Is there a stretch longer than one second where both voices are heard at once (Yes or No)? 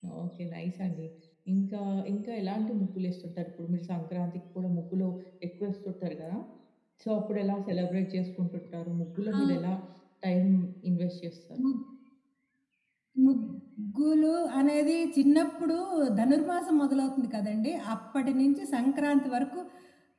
No